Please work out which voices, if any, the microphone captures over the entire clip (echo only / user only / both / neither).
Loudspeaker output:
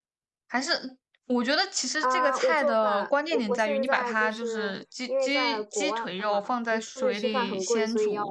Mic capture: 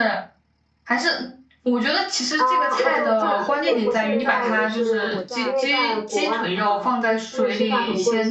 both